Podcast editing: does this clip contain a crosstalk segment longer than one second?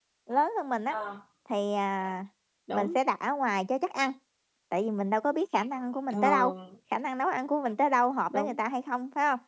No

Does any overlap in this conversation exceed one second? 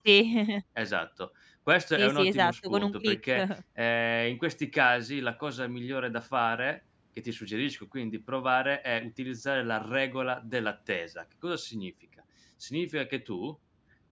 Yes, from 2.0 s

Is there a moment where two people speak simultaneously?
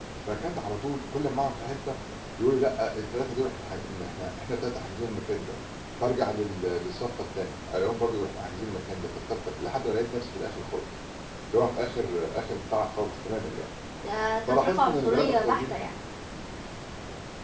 Yes, from 14.5 s

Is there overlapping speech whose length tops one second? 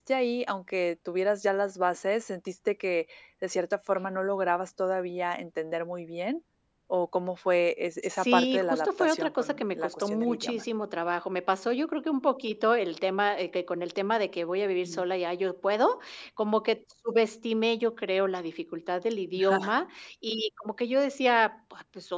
Yes, from 8.1 s

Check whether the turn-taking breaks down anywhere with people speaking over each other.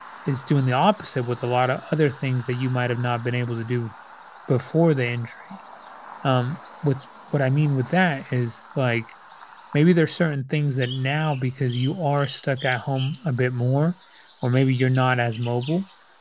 No

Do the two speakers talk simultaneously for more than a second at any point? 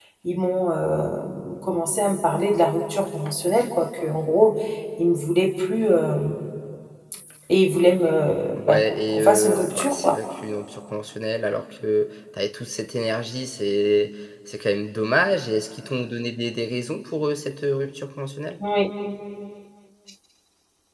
Yes, from 8.6 s

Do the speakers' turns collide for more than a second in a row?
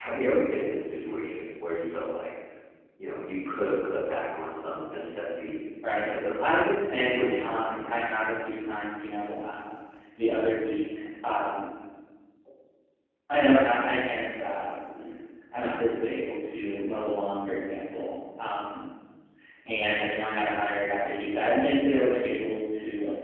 Yes, from 5.9 s

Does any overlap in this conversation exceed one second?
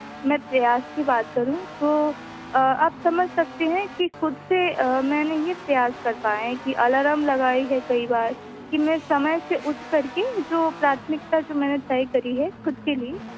No

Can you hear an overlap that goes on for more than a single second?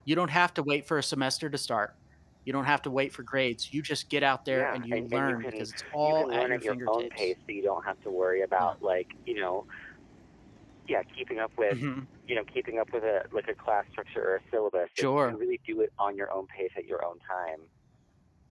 Yes, from 4.5 s

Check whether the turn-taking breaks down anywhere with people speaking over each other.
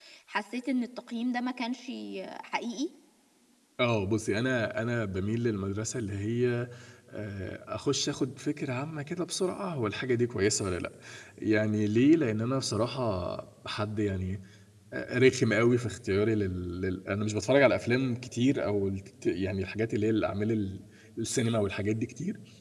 No

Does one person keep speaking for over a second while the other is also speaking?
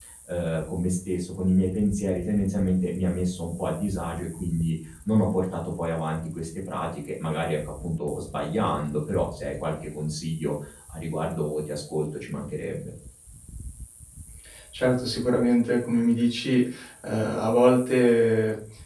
No

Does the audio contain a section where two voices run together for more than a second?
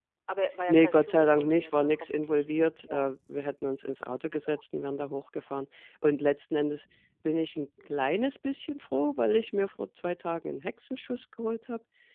Yes, from 0.7 s

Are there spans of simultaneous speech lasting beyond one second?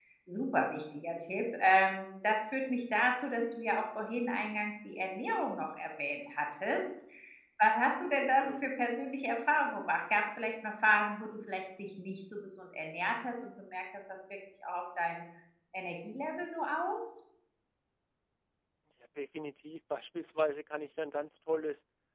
No

